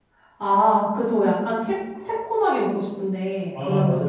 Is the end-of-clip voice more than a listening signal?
Yes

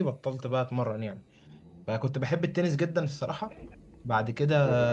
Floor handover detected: No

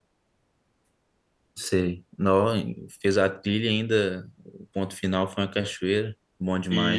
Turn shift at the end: Yes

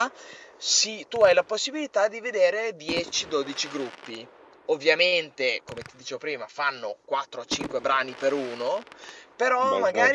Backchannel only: Yes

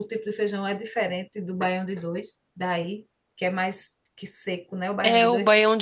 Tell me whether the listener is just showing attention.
No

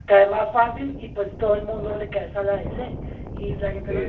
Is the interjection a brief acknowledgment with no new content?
Yes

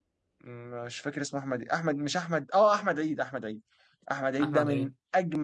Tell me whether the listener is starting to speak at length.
No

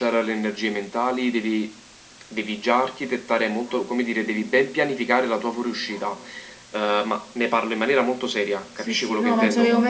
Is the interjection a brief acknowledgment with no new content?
No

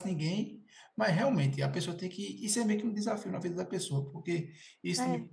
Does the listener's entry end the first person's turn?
No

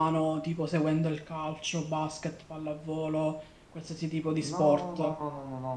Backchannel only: No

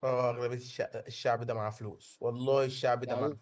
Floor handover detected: Yes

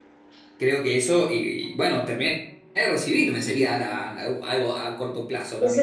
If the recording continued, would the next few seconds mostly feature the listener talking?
Yes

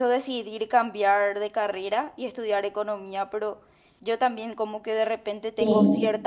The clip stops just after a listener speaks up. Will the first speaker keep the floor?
Yes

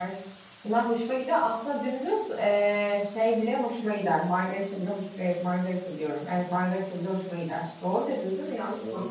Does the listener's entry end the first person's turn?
Yes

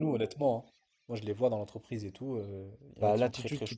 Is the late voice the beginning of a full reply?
Yes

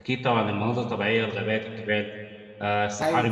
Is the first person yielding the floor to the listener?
No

